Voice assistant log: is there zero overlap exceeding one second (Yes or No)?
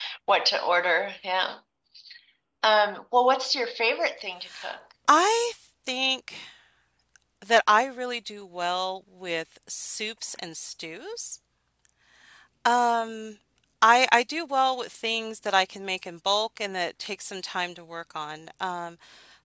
Yes